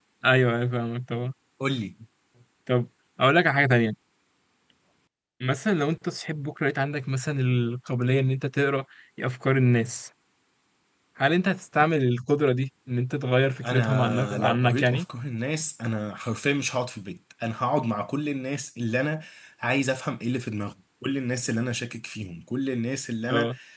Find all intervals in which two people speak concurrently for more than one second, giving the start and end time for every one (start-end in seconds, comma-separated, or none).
13.6-15.0